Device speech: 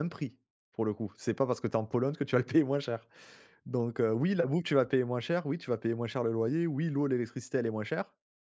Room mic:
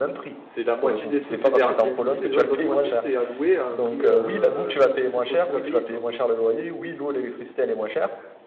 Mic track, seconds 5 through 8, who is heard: both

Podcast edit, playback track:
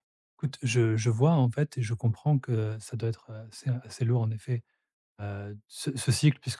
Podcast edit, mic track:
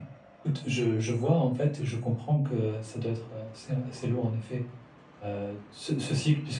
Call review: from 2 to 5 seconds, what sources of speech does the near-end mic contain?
echo only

